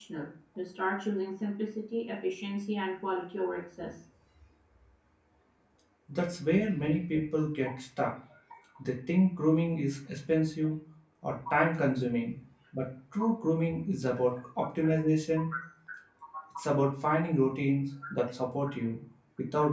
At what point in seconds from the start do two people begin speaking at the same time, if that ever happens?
none

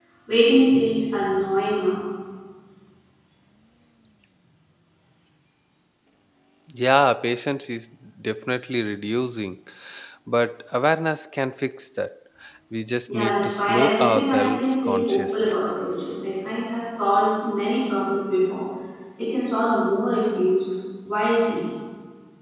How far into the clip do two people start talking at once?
13.1 s

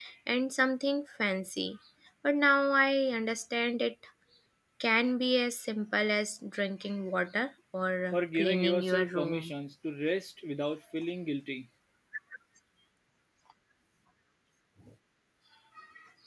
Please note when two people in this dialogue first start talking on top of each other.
8.1 s

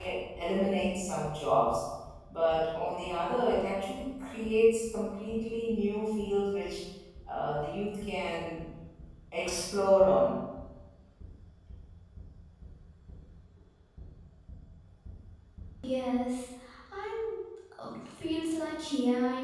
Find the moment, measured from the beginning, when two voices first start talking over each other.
none

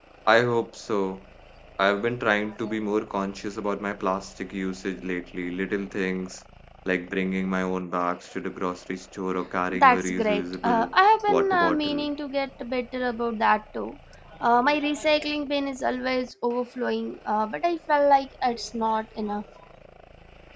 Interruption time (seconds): 9.7 s

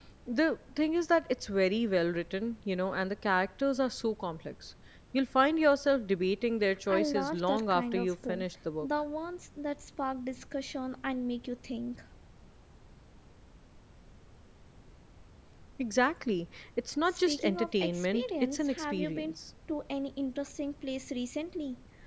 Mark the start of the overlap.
6.9 s

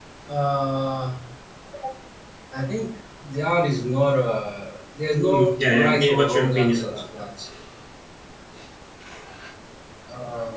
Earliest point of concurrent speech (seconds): 5.2 s

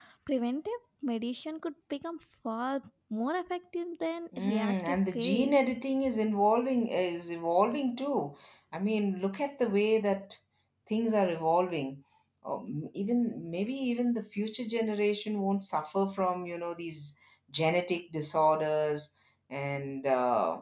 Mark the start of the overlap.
4.3 s

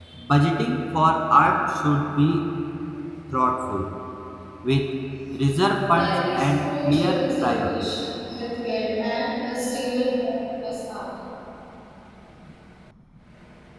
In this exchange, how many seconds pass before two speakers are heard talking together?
5.9 s

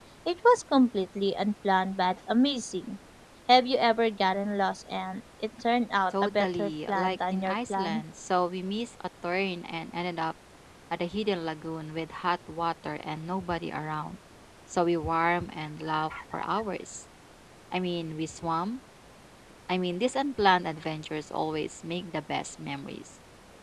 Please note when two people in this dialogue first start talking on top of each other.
6.1 s

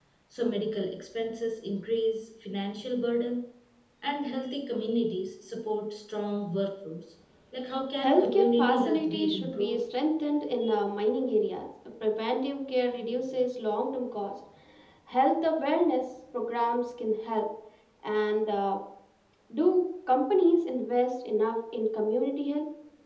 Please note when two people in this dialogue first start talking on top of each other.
8.0 s

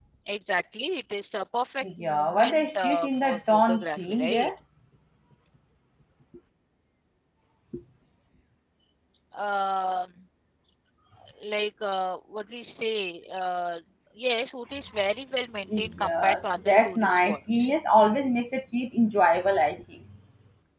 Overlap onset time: 1.8 s

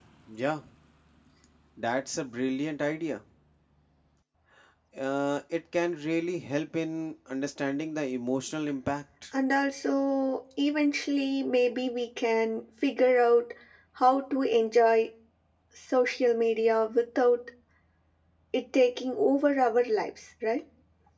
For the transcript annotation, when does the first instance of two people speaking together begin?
none

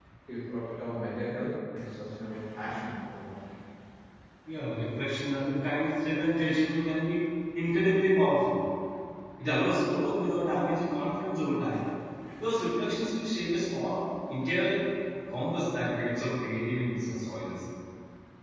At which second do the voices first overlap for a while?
none

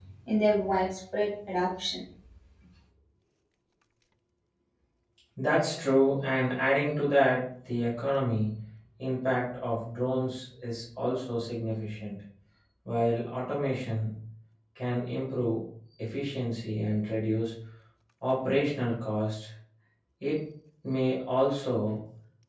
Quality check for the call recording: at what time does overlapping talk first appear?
none

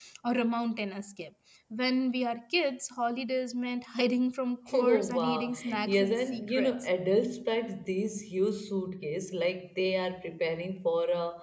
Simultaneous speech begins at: 4.7 s

